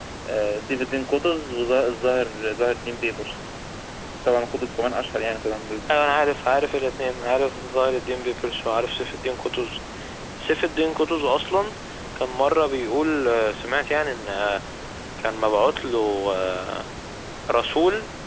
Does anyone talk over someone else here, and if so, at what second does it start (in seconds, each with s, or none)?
none